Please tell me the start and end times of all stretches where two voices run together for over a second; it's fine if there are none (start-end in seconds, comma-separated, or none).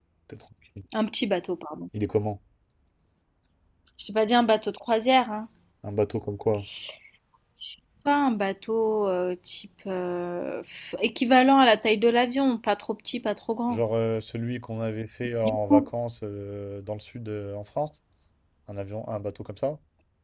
none